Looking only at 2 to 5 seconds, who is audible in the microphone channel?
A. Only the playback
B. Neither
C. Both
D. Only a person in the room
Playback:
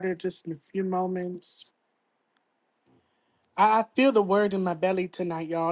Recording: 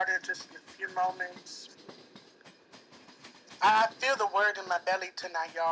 A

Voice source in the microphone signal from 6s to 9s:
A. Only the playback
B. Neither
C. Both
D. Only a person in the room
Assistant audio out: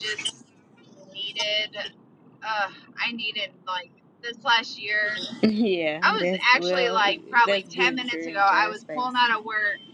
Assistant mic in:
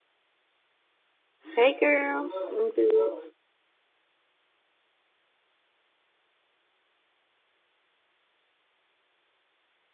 B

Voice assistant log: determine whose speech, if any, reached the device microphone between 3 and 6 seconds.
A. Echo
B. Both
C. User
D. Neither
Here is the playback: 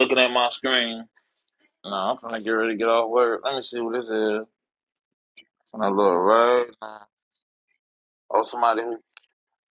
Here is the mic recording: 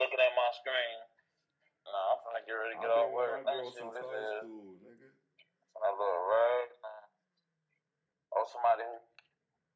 B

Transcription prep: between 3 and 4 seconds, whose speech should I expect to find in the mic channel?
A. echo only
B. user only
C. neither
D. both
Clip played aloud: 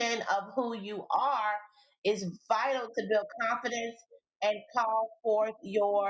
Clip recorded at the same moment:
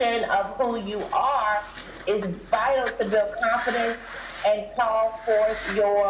A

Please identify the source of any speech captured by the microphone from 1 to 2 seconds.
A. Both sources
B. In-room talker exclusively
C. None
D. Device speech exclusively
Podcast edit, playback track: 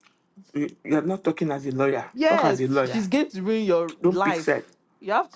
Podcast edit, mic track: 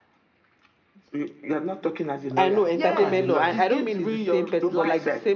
D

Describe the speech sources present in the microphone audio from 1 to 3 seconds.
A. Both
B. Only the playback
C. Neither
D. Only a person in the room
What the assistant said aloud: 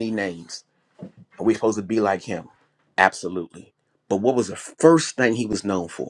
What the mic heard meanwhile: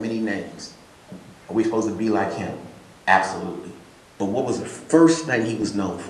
B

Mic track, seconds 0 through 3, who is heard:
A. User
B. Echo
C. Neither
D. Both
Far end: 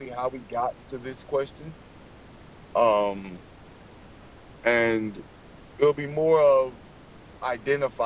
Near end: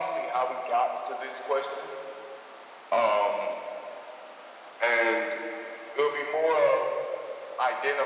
B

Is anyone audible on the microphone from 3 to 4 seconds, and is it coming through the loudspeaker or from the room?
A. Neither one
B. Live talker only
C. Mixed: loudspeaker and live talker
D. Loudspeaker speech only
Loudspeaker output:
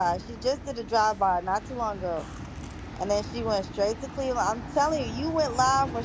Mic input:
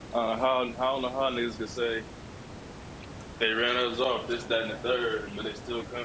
B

